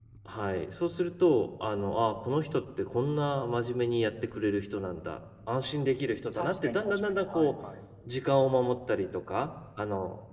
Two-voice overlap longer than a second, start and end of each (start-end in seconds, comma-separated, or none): 6.3-7.5